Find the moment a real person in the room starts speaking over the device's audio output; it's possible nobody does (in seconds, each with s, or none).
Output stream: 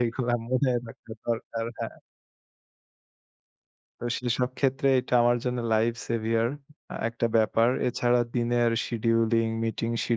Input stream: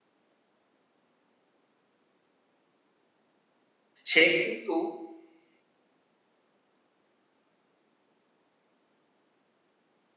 4.1 s